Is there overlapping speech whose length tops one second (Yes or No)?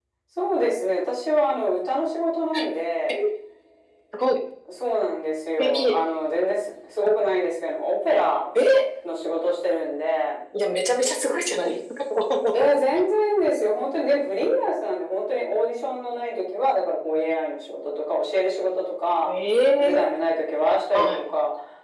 No